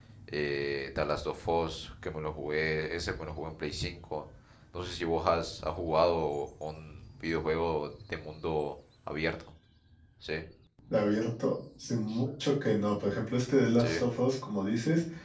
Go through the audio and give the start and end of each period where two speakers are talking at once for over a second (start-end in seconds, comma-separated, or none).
none